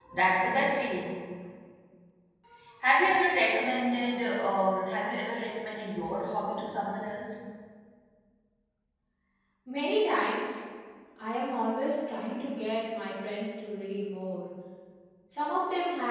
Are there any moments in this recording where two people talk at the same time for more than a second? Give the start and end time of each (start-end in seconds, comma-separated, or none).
none